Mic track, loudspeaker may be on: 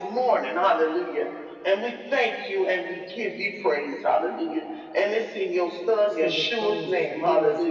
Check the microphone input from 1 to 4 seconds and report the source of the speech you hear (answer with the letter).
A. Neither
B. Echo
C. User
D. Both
B